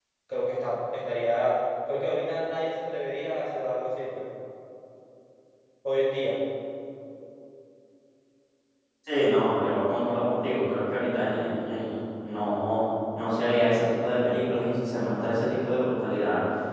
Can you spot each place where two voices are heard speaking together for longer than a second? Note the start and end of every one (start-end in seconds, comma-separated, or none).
none